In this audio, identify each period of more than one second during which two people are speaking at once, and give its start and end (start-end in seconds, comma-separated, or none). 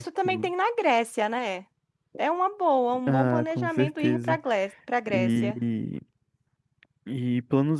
3.1-4.4